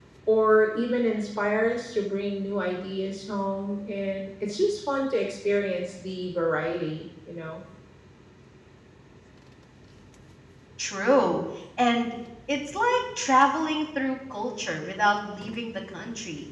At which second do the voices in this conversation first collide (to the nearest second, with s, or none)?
none